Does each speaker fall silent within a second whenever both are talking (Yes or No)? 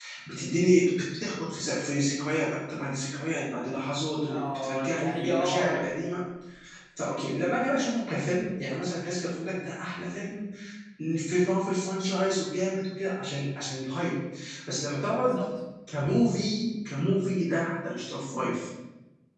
No